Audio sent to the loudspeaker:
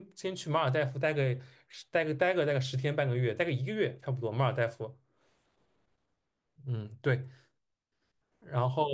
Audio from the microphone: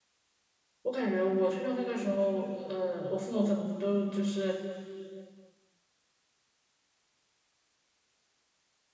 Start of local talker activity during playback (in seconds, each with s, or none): 0.8 s